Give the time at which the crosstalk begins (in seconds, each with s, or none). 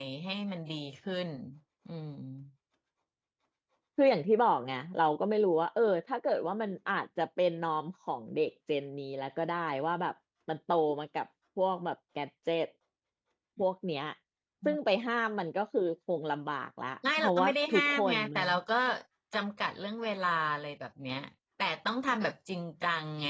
17.0 s